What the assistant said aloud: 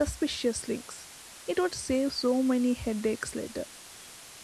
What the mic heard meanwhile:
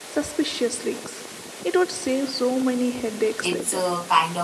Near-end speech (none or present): present